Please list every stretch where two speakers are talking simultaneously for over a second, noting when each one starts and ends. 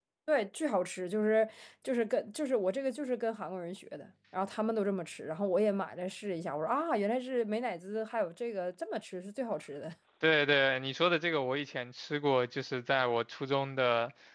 none

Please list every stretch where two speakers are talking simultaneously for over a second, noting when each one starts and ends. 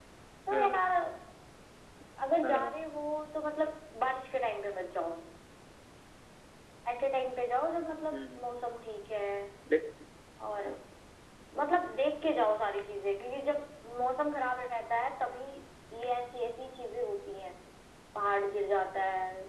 none

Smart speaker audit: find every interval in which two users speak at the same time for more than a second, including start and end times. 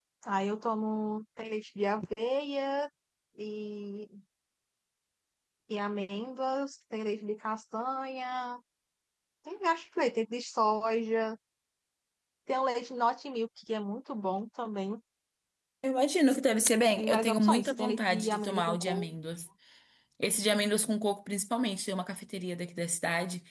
17.0-19.1

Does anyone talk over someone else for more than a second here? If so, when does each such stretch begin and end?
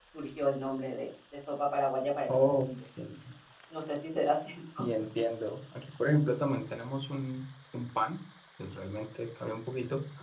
none

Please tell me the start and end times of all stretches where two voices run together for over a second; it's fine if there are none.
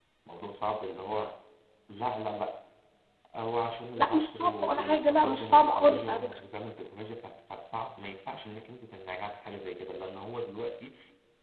4.0-6.3

